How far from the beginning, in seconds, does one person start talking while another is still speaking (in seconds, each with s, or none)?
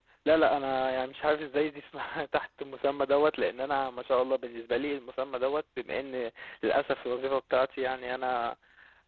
none